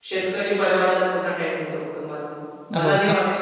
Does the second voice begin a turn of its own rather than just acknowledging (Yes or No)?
No